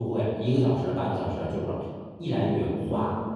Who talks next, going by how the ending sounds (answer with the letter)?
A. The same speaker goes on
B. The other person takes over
A